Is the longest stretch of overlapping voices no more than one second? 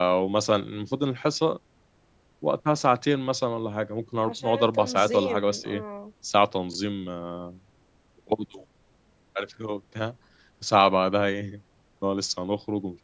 No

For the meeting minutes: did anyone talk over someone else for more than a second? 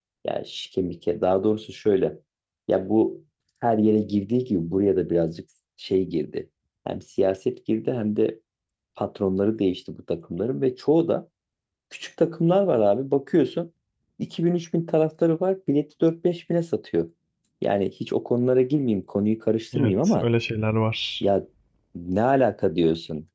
No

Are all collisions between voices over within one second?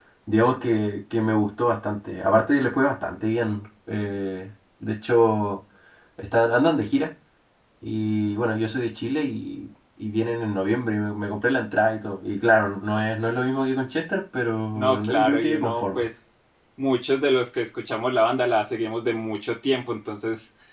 No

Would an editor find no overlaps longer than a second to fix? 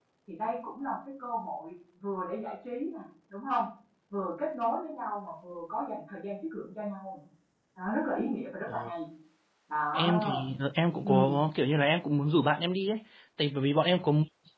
Yes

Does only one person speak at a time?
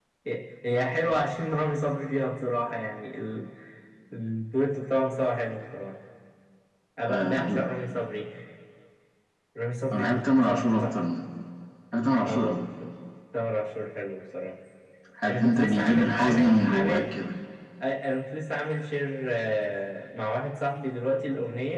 No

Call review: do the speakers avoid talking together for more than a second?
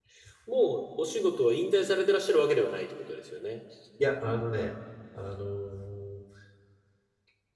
Yes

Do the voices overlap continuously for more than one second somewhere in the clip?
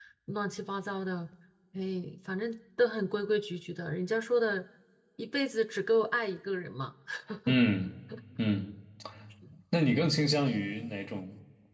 No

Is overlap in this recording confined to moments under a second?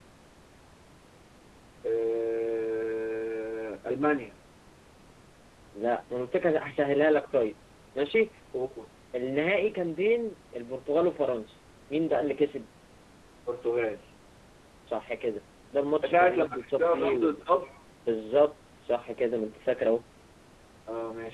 No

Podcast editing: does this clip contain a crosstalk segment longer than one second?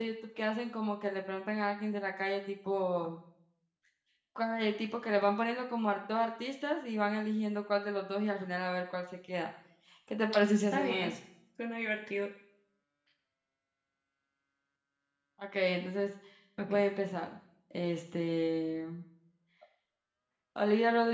No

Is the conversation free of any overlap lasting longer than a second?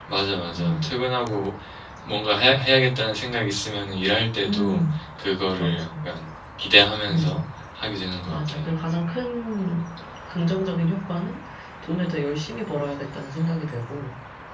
Yes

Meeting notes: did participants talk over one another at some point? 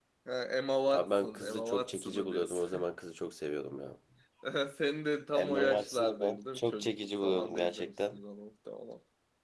Yes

